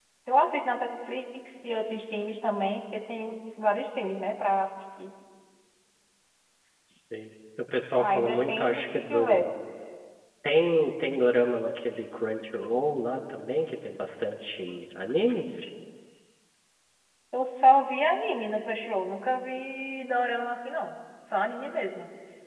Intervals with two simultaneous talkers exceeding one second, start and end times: 8.0-9.4

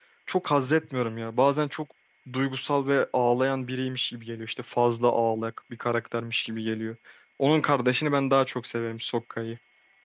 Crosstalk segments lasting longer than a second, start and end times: none

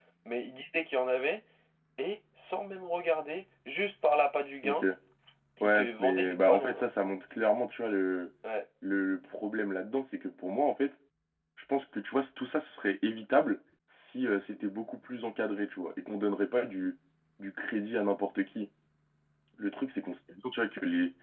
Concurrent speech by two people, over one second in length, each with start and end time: 5.6-6.8

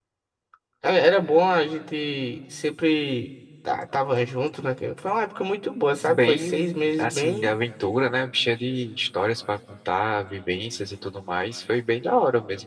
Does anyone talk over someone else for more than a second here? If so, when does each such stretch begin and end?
6.1-7.5

